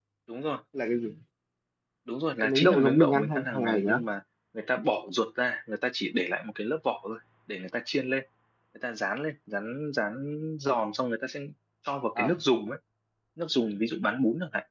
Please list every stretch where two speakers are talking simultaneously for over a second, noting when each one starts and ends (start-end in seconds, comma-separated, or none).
2.4-4.0